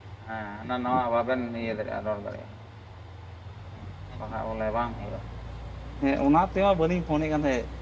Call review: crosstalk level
none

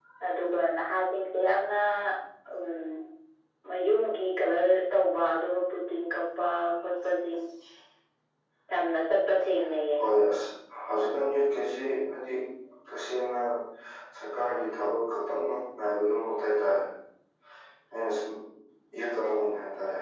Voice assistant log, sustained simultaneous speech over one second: none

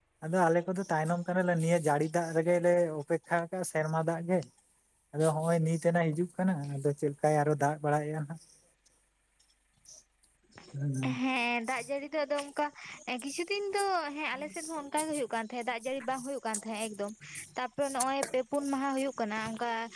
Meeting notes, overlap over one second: none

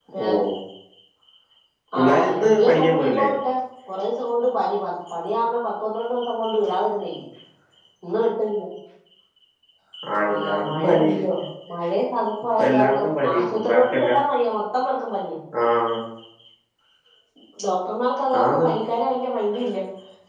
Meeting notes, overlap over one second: present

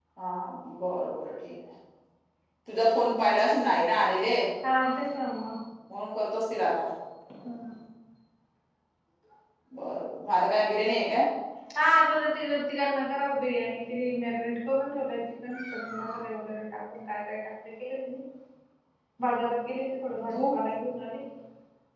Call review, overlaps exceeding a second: none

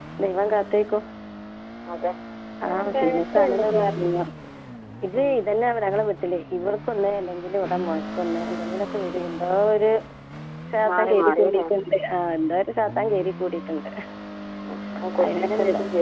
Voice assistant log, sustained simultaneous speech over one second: present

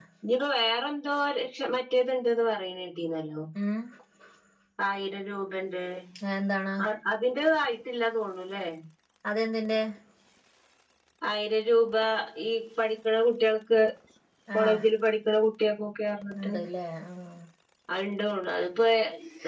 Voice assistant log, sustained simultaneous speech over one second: none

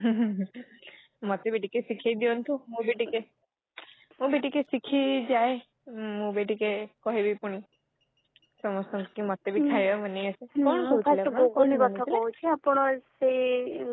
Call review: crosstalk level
present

